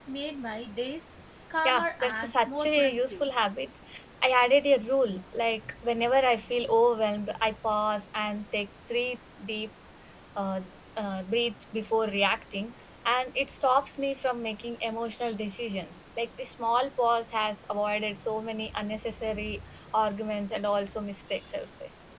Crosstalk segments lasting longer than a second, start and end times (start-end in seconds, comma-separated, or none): 1.6-3.3